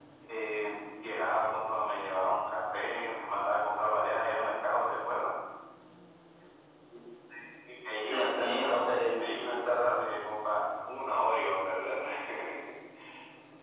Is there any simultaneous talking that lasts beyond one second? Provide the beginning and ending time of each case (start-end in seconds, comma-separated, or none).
8.1-9.9